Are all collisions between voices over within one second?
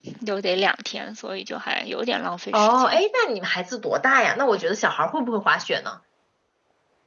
Yes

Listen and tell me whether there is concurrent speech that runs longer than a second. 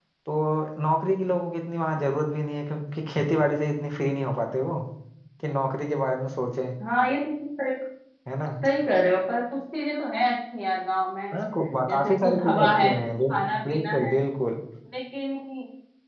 Yes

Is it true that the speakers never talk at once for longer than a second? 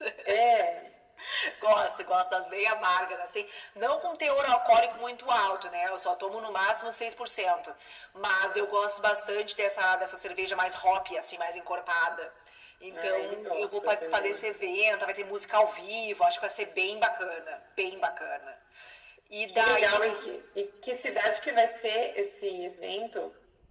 No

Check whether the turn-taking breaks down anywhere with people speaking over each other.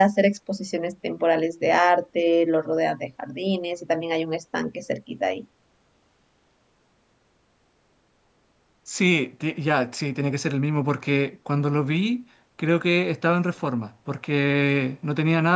No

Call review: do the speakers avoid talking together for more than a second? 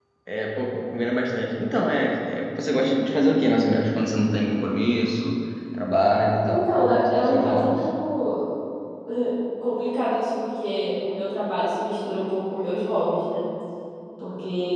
No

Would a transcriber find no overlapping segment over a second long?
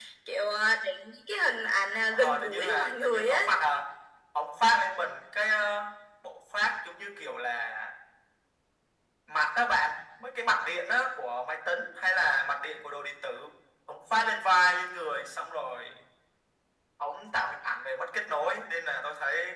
No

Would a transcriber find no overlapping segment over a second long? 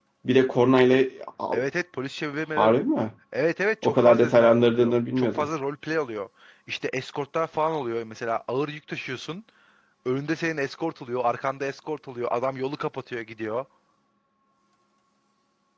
No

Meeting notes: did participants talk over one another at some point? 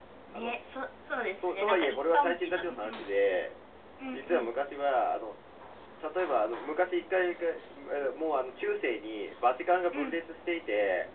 Yes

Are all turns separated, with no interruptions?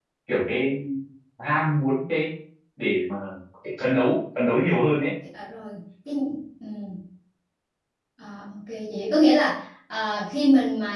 Yes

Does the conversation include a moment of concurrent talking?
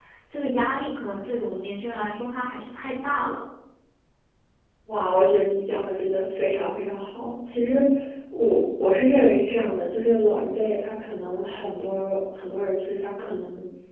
No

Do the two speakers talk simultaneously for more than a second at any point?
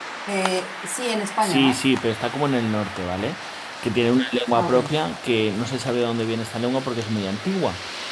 No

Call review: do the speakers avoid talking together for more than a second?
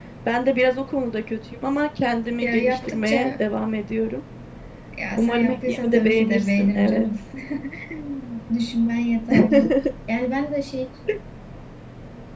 No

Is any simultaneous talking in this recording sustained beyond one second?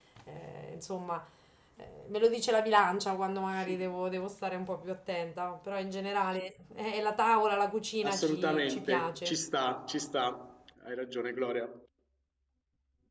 Yes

